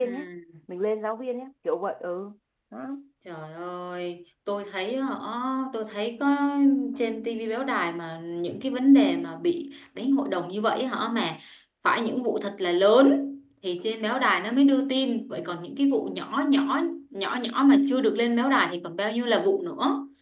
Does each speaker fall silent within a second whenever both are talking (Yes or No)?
Yes